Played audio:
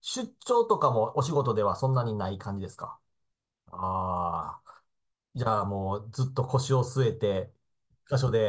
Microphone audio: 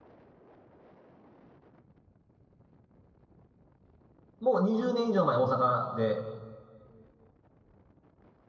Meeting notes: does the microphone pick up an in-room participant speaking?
Yes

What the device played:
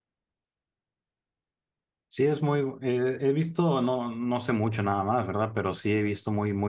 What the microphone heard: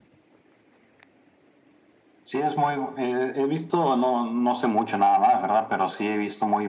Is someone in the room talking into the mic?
No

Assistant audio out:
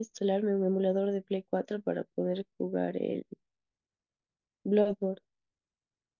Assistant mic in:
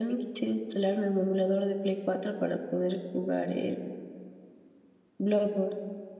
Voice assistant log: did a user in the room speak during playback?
No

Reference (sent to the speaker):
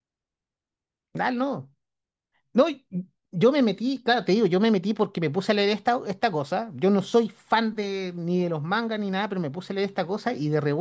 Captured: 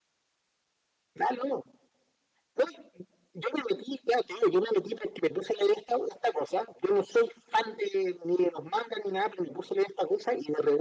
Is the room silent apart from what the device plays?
Yes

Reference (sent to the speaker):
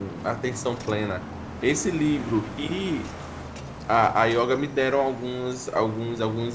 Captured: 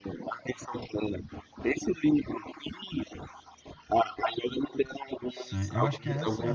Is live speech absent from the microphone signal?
No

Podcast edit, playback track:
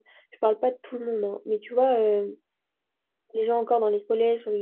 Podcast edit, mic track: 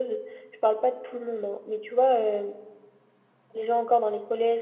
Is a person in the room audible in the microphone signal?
No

